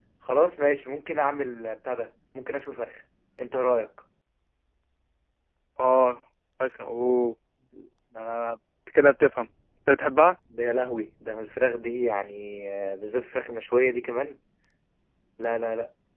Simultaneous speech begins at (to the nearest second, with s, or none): none